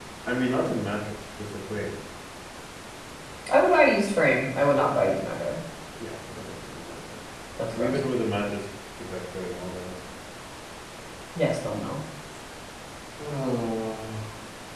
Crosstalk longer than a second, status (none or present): none